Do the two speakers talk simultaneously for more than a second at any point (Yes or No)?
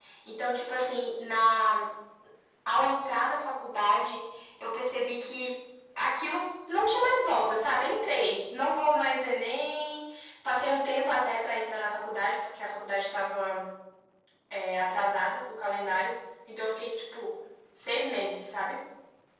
No